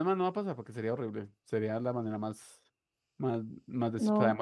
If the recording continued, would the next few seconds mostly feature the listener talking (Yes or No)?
No